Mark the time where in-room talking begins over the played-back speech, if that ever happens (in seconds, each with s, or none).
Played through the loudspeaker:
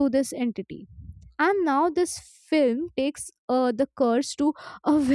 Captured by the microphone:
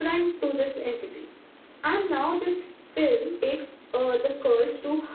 none